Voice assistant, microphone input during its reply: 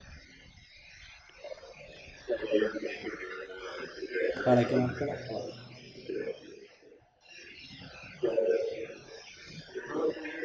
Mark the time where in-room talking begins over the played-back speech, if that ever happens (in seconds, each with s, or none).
4.4 s